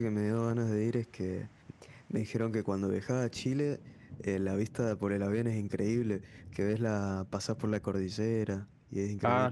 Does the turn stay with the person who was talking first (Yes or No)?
No